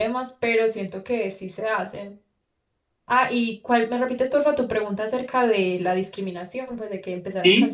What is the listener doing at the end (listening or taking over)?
taking over